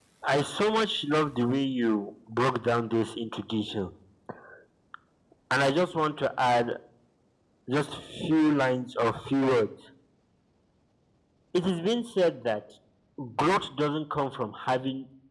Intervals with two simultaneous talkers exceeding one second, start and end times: none

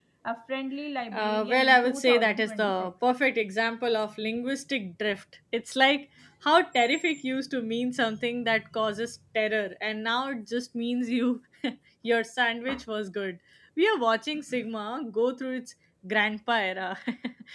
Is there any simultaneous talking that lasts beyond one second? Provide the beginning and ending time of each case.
1.1-2.9

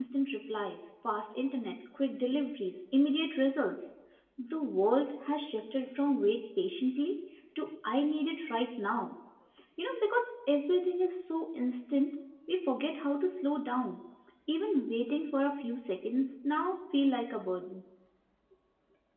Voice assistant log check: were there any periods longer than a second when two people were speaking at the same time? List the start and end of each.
none

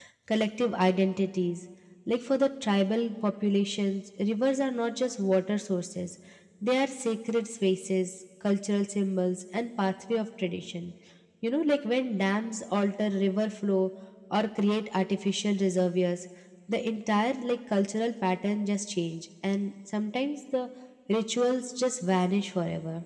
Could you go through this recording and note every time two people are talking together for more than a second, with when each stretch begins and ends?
none

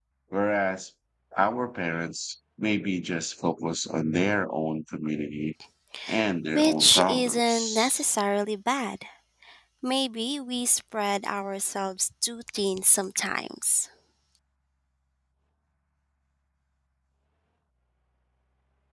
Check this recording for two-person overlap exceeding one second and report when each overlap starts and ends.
6.5-8.0

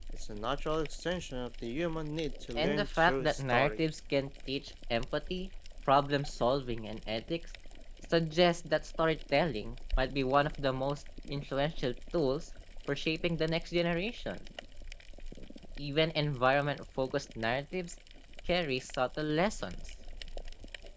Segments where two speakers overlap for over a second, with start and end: 2.6-3.8

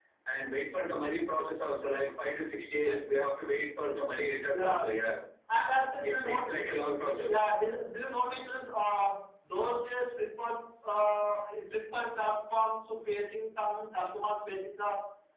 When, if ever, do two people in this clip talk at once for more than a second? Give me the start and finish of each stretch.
none

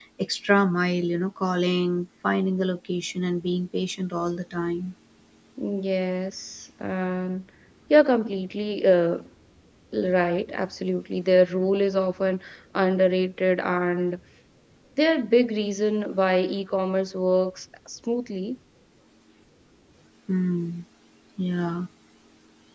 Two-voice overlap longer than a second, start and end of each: none

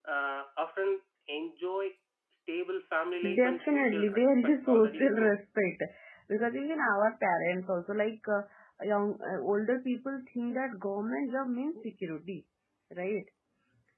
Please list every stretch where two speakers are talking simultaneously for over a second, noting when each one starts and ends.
3.4-5.3

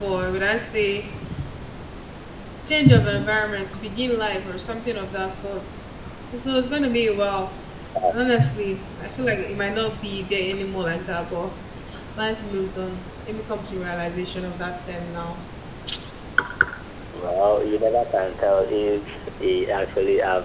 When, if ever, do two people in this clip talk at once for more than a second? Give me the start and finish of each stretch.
none

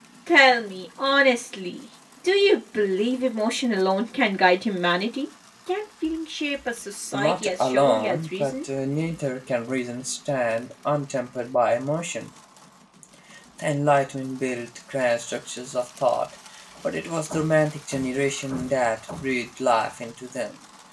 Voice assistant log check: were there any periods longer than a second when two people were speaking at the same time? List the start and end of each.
7.1-8.6

